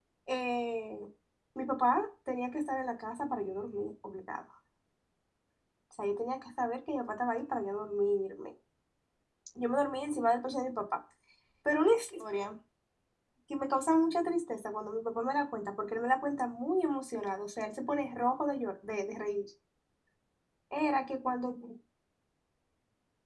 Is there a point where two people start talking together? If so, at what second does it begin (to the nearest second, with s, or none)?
none